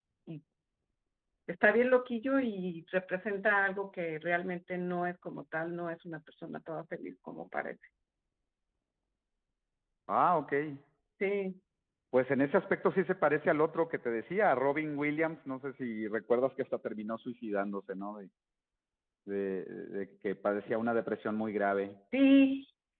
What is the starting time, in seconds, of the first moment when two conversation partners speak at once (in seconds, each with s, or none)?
none